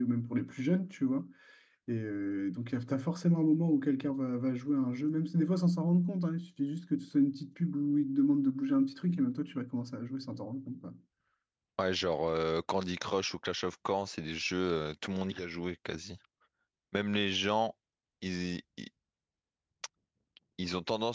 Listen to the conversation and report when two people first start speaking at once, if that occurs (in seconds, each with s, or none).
none